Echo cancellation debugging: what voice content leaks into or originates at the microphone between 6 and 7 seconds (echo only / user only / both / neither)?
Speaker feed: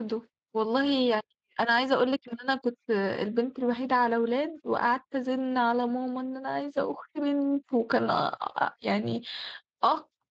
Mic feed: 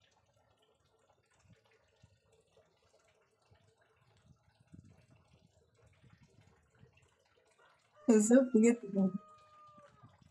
neither